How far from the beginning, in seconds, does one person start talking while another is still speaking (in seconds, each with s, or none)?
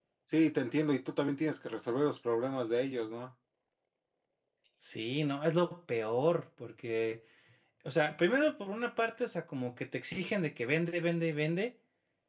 none